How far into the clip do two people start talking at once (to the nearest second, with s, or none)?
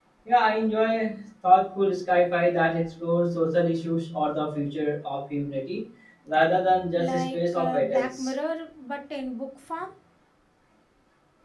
7 s